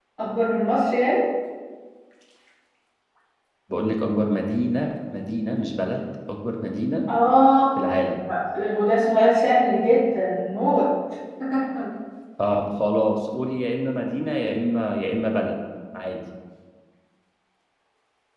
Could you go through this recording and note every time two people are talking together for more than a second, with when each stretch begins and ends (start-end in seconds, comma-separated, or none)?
none